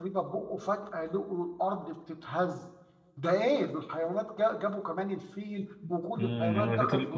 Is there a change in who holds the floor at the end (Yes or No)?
Yes